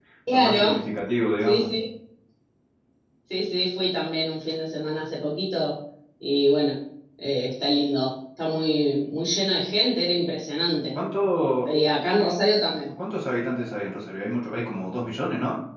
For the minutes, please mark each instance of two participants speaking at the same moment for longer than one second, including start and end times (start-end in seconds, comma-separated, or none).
none